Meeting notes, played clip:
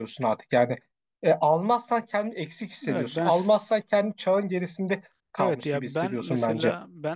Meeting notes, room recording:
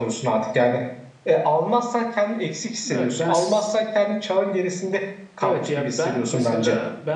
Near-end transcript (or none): none